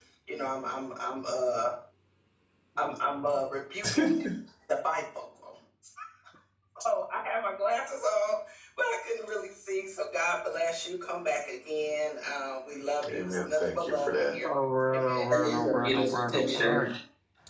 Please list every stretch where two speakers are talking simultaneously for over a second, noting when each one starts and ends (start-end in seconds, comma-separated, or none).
13.1-14.5, 14.9-16.8